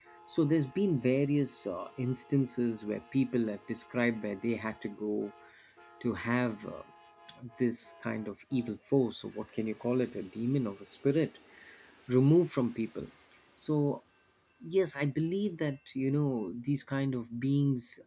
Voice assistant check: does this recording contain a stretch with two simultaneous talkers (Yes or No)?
No